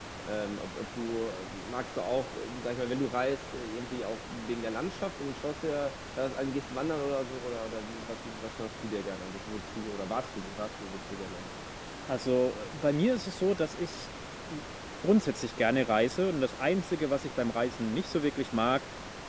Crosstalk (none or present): none